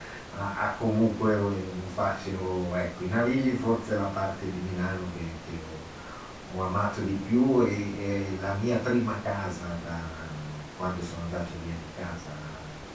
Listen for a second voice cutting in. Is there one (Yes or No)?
No